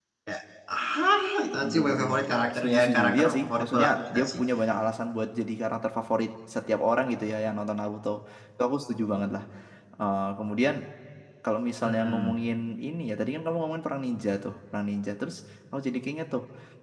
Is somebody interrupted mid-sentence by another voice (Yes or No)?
Yes